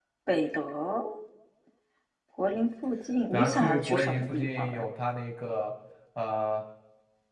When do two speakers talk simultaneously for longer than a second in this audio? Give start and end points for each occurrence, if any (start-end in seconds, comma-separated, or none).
3.3-4.8